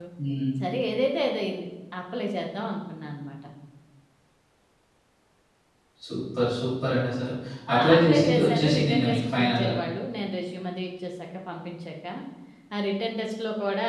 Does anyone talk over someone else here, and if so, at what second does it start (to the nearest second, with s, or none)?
8 s